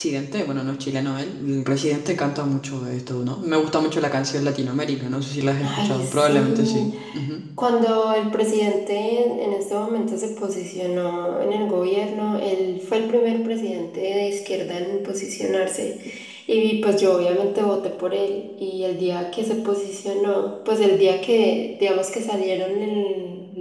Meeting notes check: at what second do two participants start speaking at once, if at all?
5.6 s

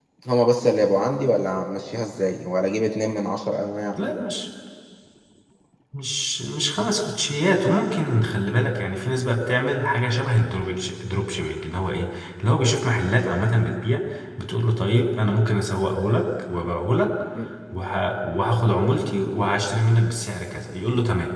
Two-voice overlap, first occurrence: none

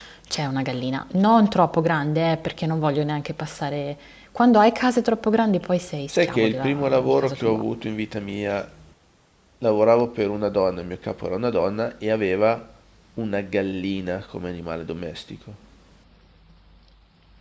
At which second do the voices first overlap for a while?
6.1 s

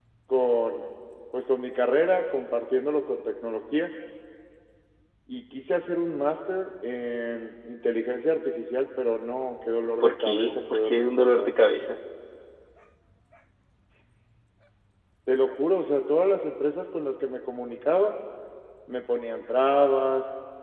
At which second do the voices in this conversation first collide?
10.0 s

